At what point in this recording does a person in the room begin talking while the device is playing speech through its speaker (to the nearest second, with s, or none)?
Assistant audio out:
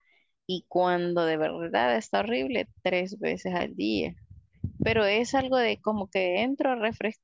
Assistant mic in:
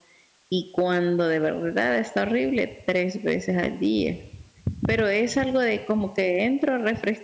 none